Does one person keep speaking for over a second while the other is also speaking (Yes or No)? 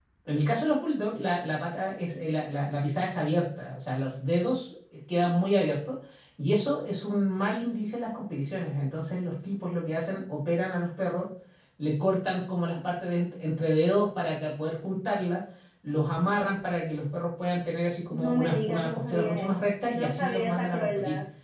Yes